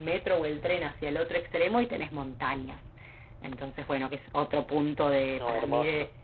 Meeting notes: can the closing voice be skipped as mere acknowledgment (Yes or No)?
Yes